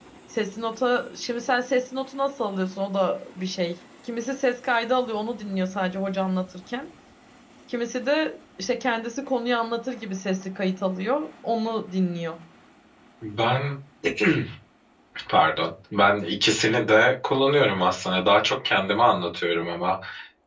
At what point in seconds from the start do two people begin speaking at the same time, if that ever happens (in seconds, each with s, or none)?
none